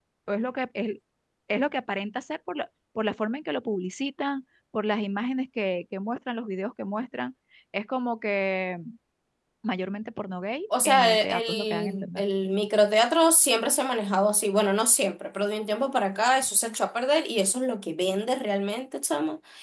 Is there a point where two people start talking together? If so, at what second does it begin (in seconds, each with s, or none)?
10.7 s